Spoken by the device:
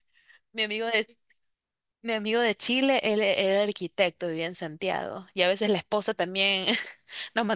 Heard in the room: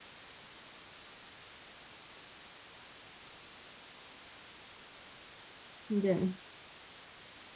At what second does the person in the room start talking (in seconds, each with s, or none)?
5.9 s